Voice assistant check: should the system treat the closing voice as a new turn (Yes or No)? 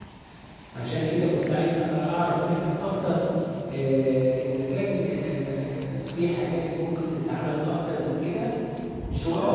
Yes